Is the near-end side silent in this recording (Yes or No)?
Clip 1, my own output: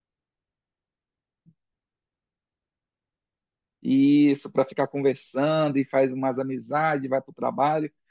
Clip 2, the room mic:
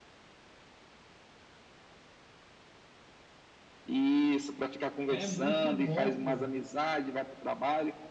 No